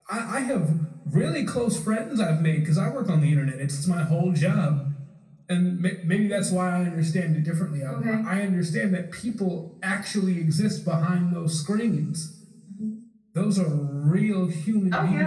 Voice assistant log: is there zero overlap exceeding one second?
Yes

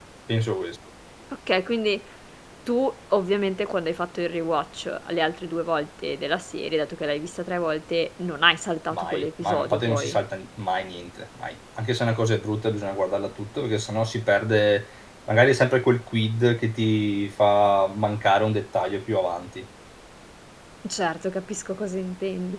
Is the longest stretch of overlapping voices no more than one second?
No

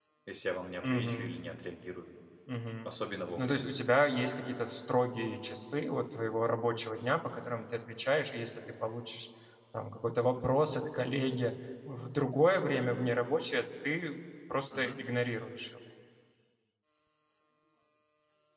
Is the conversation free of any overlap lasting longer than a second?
Yes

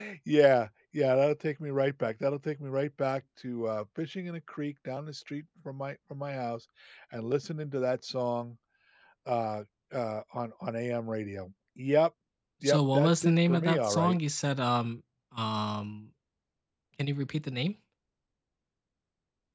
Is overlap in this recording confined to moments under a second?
No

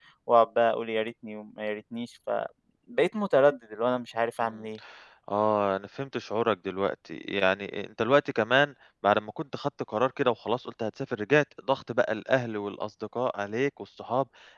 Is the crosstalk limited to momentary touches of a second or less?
Yes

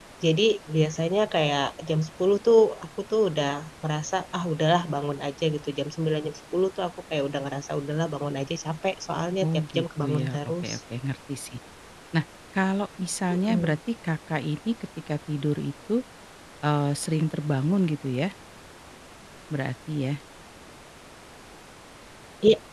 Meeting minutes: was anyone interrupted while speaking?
Yes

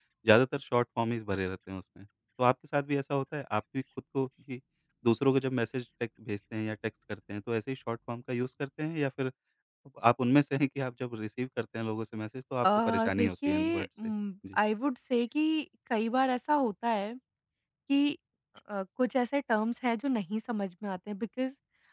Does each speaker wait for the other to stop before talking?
No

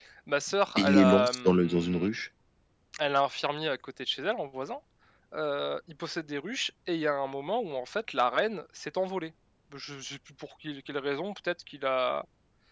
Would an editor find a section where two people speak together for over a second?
Yes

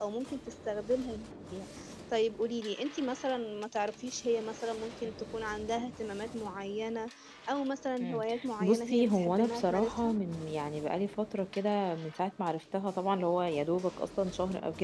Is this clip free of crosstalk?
No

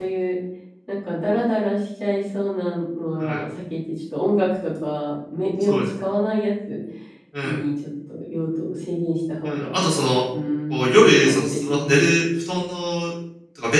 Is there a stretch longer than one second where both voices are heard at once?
Yes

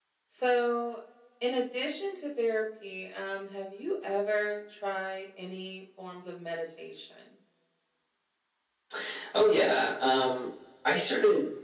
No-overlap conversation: Yes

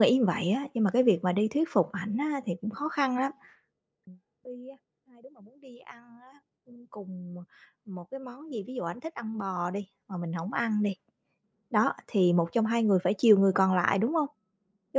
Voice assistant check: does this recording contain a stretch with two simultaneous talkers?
No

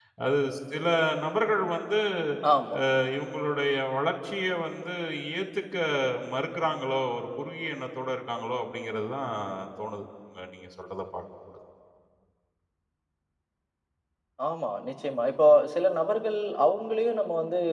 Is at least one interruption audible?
No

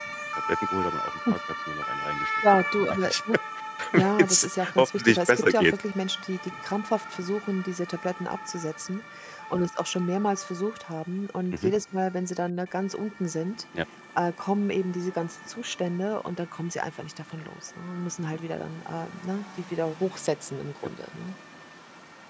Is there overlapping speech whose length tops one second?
Yes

